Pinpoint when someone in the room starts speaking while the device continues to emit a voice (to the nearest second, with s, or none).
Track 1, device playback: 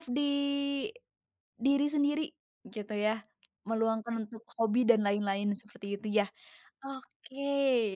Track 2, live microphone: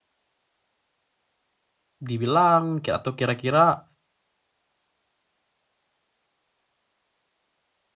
2 s